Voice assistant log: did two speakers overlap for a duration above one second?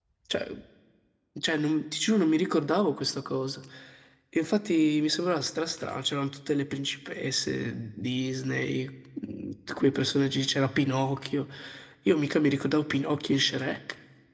No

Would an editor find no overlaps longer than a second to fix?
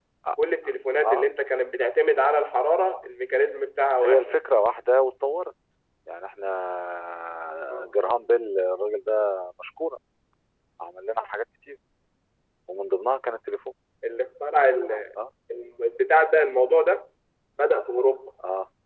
Yes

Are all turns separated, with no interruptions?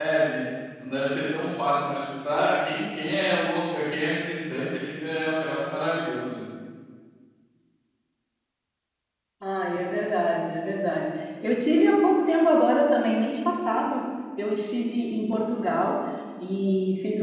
Yes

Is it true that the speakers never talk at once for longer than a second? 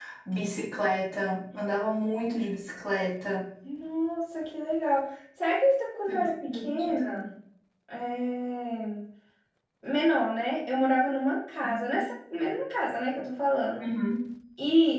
No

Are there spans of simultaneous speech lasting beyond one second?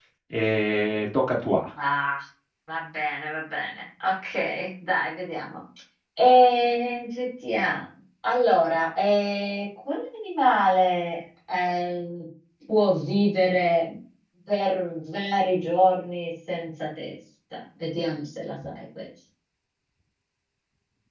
No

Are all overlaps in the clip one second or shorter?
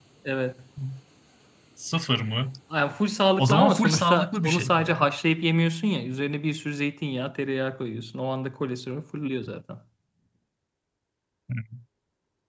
No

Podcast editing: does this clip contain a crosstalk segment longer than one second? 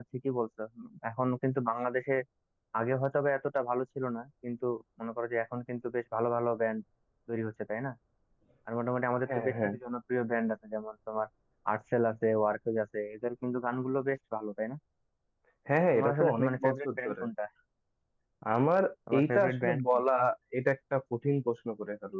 Yes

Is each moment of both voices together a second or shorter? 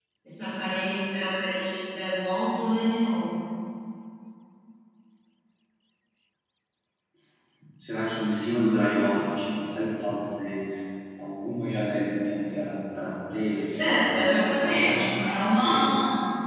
No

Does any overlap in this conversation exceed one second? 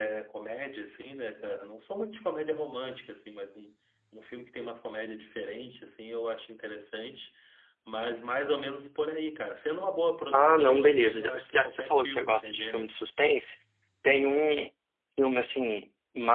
Yes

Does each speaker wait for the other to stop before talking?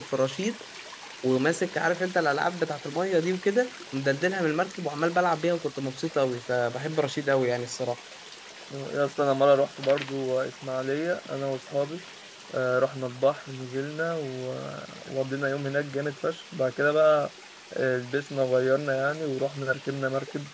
Yes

